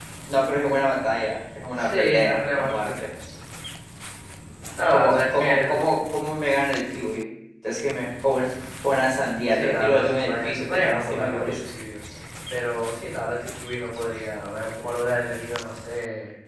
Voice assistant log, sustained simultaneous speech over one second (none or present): present